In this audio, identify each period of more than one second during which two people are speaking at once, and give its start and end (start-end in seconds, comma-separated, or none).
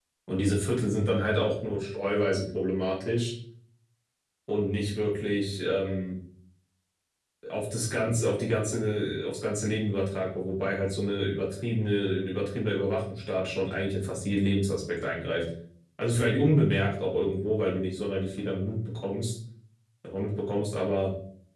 none